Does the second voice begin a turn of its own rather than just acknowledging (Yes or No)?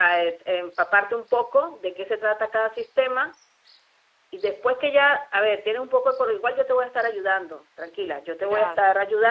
No